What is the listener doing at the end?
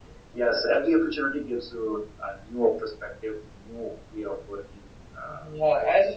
taking over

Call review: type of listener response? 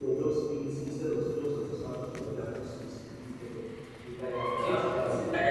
taking over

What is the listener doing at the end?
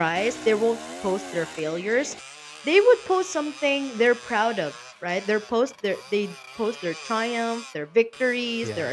listening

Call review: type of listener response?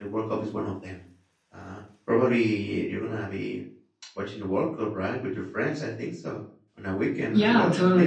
taking over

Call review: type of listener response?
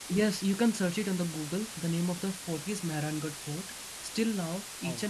listening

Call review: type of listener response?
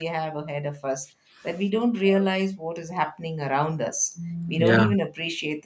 listening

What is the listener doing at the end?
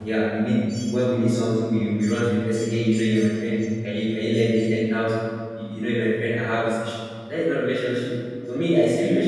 listening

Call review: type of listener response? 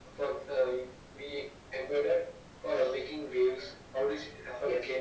taking over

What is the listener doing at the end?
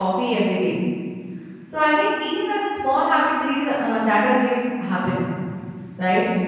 listening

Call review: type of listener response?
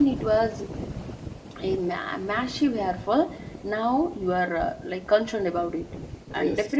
listening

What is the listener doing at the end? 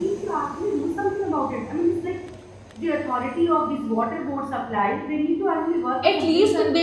taking over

